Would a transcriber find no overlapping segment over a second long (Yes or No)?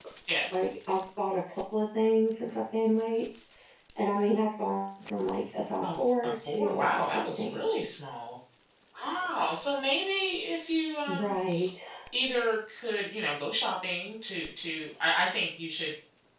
No